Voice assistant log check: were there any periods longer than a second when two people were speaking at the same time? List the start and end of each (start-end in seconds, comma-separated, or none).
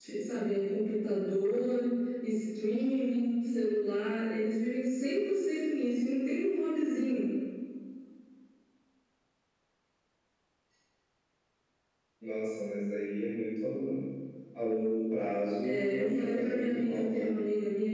15.6-17.3